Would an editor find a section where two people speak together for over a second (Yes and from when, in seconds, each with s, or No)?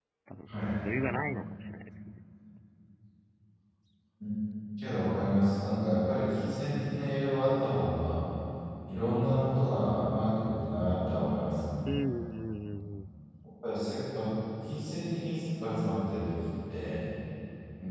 No